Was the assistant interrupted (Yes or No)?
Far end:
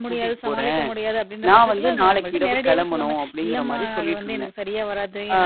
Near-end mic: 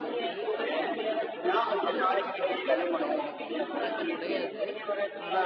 Yes